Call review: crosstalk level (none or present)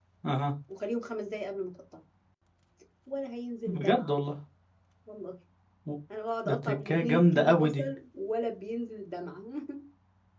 present